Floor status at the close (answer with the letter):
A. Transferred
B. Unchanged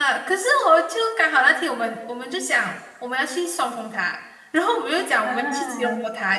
B